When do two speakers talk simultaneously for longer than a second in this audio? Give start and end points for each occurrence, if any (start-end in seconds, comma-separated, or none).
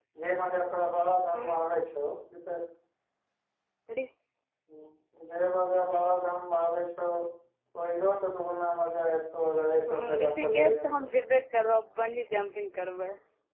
9.9-11.1